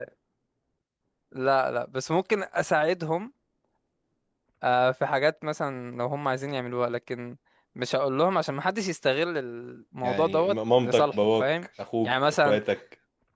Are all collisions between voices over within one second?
No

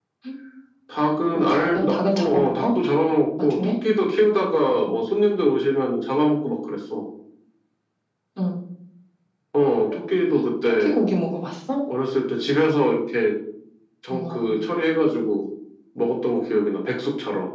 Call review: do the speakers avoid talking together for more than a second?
No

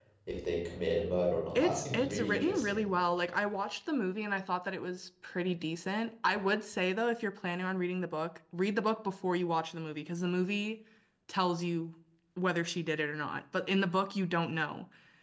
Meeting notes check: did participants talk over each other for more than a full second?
Yes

